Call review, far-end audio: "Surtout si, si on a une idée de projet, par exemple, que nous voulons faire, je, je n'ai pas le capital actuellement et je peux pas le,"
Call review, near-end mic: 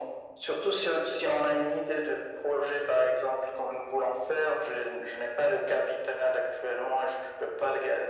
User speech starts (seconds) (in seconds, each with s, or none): none